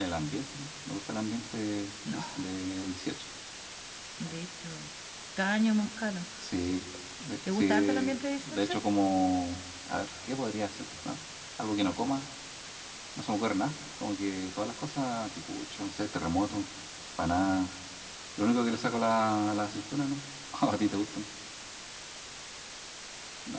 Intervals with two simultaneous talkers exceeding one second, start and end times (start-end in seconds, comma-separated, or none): 7.5-8.7